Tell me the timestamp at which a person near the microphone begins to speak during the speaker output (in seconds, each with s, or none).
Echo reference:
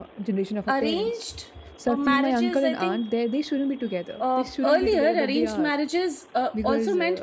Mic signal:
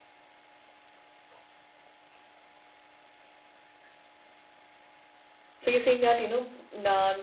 5.6 s